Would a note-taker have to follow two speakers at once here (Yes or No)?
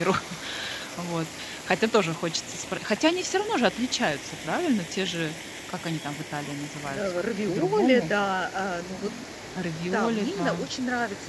Yes